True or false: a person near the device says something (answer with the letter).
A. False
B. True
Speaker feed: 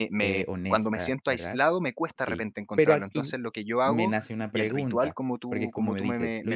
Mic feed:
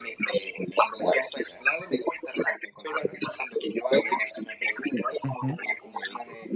B